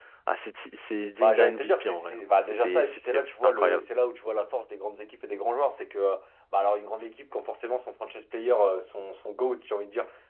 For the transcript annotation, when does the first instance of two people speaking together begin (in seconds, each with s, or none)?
1.2 s